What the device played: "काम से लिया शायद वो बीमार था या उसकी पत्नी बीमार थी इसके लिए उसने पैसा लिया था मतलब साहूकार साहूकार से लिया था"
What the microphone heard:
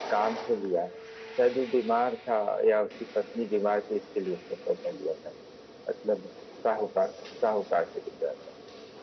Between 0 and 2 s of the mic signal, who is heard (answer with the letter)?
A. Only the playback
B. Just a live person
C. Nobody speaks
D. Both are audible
A